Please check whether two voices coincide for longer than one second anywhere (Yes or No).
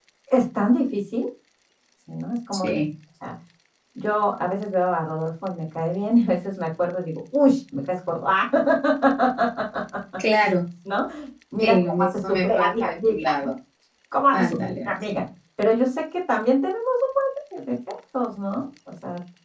Yes